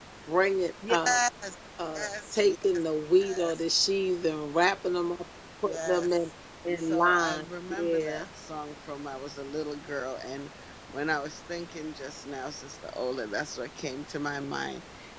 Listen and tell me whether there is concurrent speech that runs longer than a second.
Yes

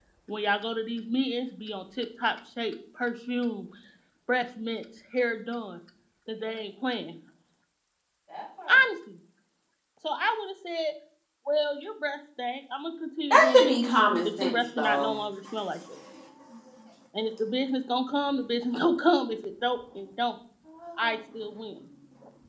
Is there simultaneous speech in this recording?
Yes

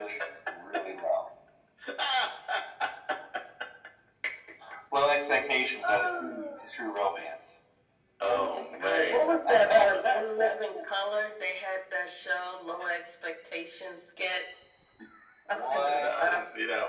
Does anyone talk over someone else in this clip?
Yes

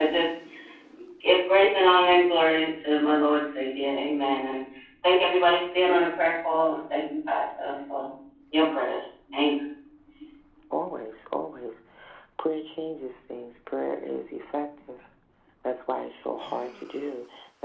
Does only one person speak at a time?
Yes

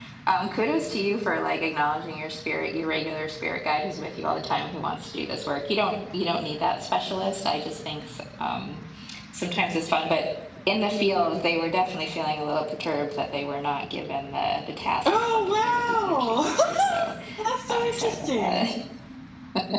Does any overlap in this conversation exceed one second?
Yes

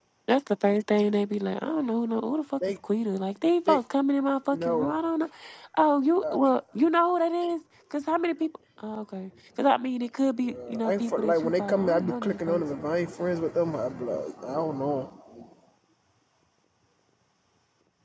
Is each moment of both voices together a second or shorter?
No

